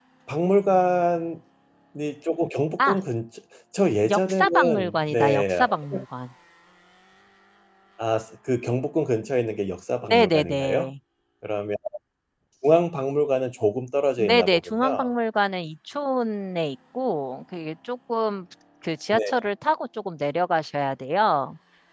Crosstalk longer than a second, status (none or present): present